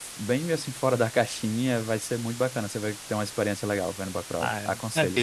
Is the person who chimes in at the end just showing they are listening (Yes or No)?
No